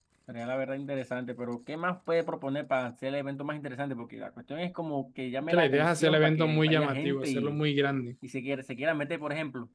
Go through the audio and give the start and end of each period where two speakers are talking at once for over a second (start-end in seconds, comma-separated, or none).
5.5-7.6